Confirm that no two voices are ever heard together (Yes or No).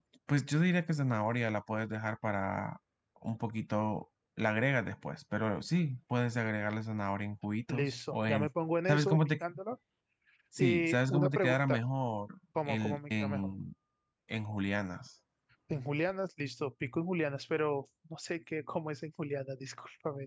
No